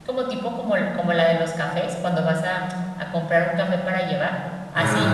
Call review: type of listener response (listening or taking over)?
listening